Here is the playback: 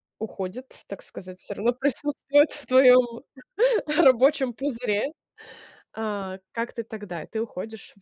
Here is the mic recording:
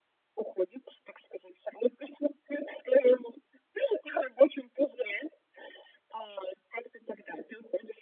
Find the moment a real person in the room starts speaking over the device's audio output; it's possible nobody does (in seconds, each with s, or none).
none